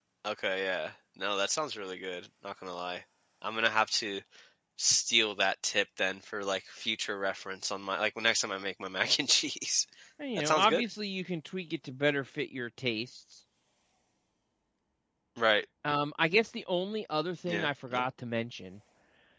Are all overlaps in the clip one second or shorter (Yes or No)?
Yes